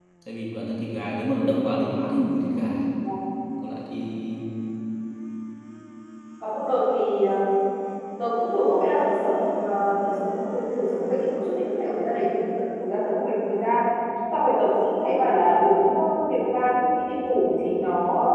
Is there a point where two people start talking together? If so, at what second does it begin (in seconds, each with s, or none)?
none